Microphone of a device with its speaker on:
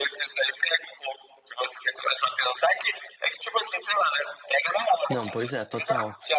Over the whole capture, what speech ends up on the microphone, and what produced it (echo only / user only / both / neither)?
both